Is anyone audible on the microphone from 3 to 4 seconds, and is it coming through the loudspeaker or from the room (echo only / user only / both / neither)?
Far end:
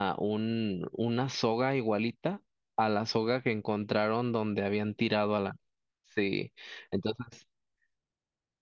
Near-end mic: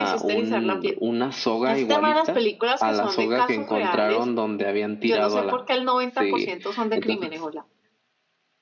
both